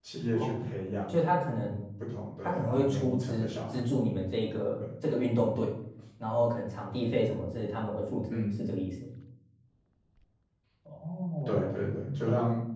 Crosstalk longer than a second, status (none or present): present